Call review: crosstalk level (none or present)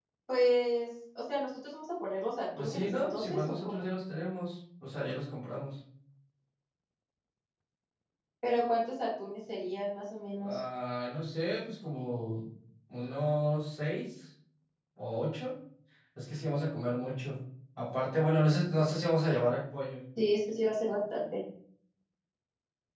present